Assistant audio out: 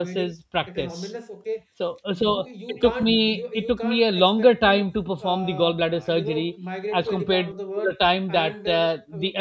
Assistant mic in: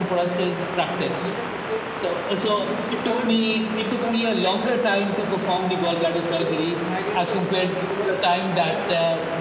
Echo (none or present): present